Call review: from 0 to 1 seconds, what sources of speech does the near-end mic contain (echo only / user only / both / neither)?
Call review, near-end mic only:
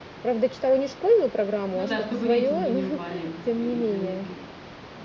echo only